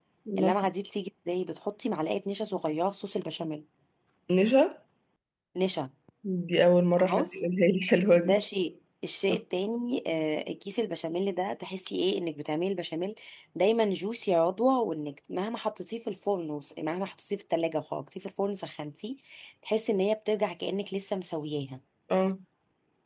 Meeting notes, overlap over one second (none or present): none